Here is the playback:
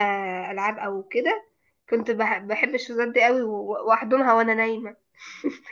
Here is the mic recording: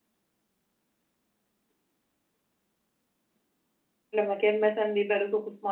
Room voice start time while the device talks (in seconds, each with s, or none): 4.1 s